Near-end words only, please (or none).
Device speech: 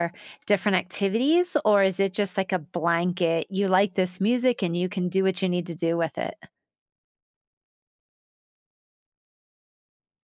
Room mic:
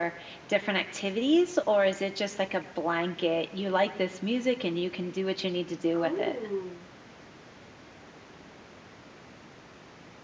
oh